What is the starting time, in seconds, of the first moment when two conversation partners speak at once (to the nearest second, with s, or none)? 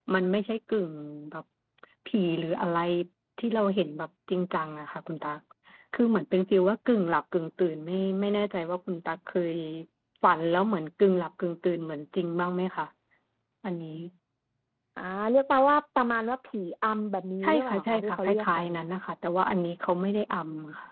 17 s